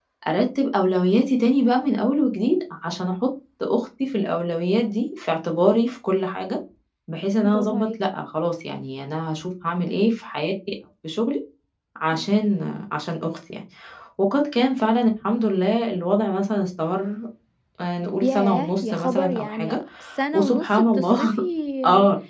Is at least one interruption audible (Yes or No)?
Yes